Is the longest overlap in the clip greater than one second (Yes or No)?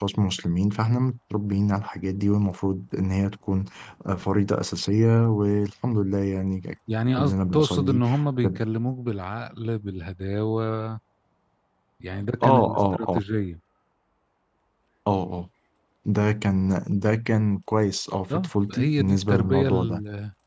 Yes